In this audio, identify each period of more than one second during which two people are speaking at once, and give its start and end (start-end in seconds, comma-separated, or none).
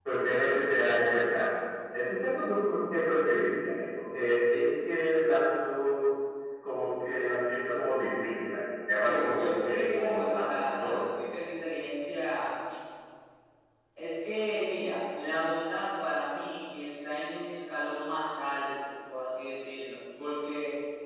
8.9-11.0